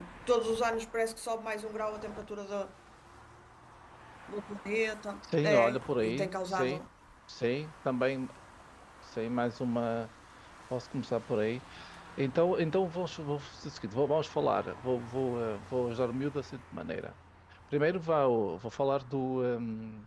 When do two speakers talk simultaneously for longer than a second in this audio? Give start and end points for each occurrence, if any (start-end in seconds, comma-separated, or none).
5.4-6.8